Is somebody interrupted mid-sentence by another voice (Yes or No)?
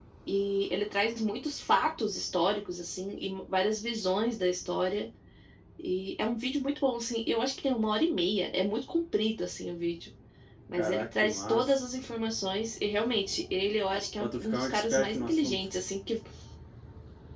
Yes